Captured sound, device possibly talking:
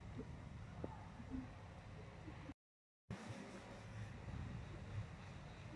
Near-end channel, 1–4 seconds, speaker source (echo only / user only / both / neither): neither